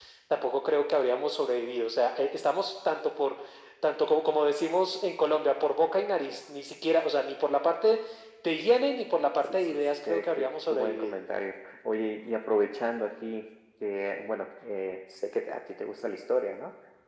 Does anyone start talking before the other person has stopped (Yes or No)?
Yes